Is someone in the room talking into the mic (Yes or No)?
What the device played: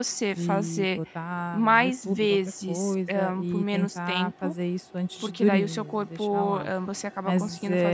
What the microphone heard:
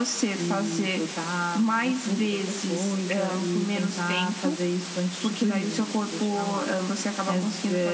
No